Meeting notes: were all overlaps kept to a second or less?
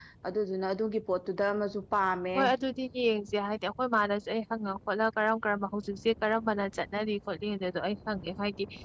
Yes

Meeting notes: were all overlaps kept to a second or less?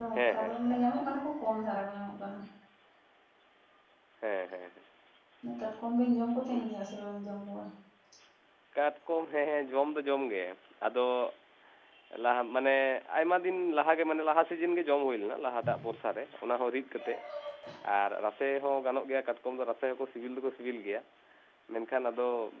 Yes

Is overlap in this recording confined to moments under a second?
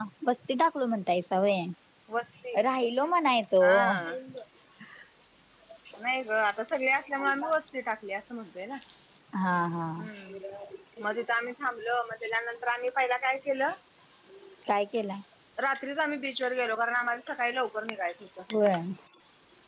Yes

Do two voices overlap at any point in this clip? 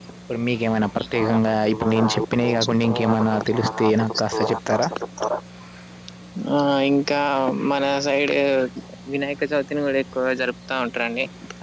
Yes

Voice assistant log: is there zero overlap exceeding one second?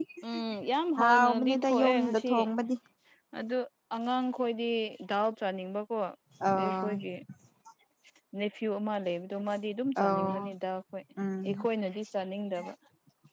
No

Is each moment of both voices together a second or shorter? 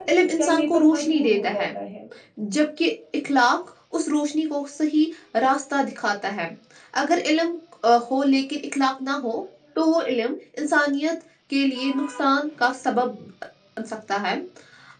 No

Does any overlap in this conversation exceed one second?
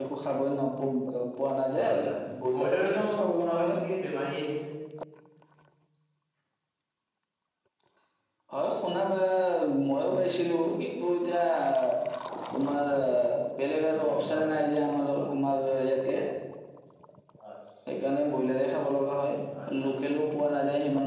Yes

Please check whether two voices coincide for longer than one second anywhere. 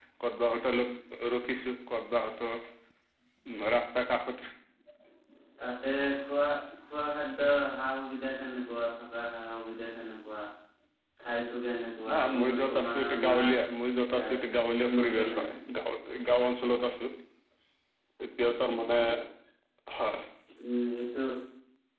Yes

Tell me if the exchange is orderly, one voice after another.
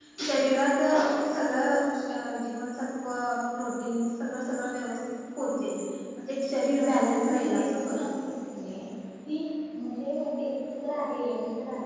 No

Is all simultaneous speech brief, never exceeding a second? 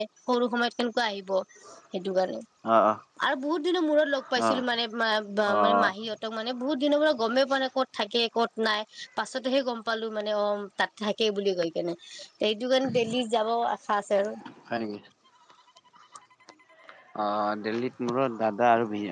Yes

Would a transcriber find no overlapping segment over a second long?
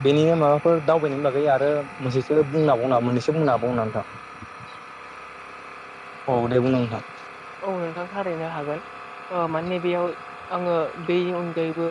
Yes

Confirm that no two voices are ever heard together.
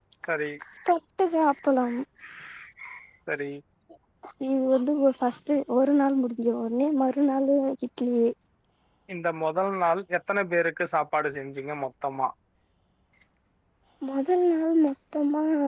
Yes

